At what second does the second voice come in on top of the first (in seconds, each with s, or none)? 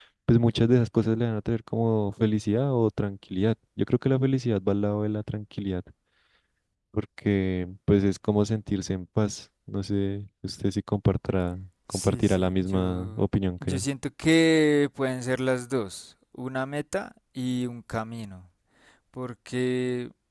11.9 s